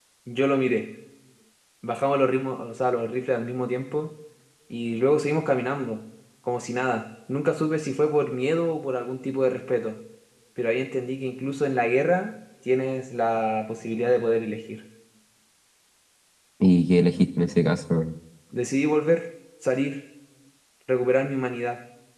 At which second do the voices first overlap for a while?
none

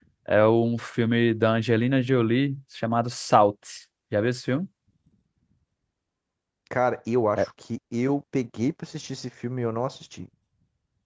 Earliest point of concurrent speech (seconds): none

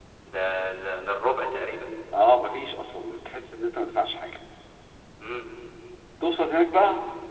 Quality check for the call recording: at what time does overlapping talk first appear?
none

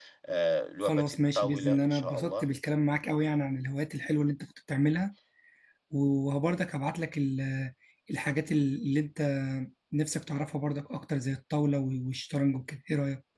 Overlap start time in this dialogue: 0.8 s

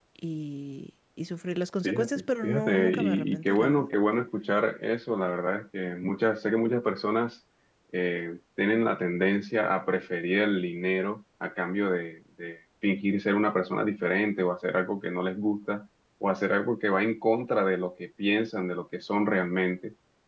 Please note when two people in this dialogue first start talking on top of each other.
1.8 s

